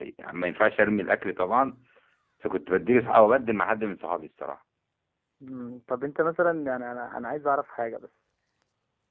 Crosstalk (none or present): none